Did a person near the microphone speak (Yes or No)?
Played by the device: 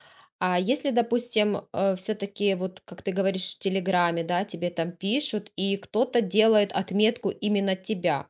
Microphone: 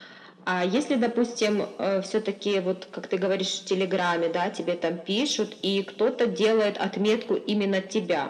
No